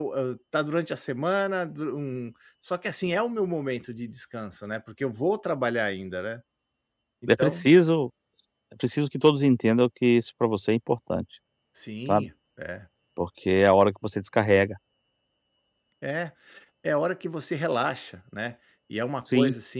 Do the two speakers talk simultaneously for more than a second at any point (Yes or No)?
No